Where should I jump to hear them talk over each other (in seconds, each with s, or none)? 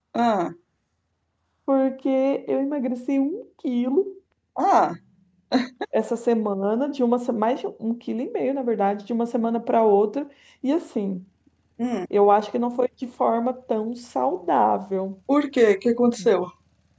none